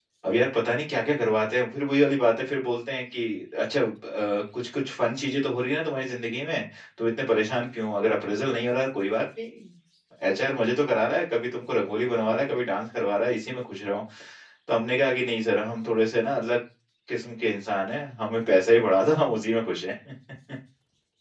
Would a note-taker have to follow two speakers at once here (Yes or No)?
No